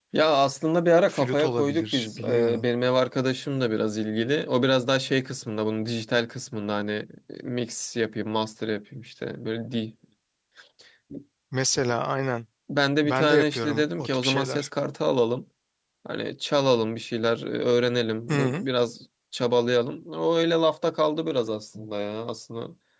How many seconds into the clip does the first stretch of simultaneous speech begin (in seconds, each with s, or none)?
1.1 s